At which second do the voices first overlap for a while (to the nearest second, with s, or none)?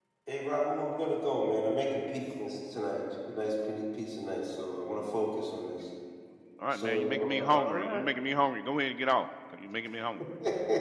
7 s